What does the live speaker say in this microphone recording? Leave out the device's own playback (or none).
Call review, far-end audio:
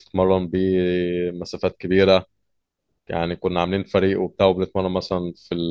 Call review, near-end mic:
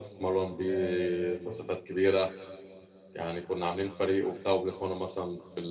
آه فور